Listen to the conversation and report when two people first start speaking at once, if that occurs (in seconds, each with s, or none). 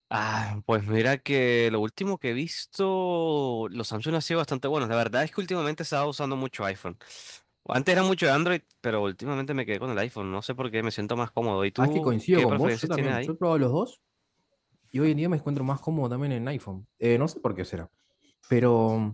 11.8 s